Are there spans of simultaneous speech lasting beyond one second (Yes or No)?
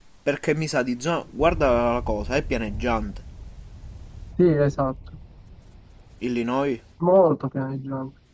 No